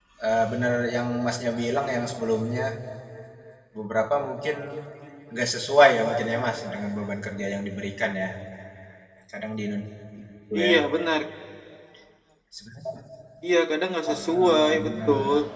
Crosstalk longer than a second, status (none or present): present